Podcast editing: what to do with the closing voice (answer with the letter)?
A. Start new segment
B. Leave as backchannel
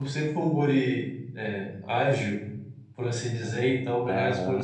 B